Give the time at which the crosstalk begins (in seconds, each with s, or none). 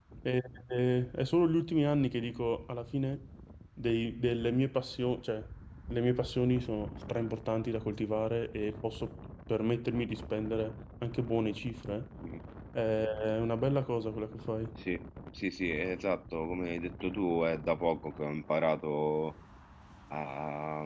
none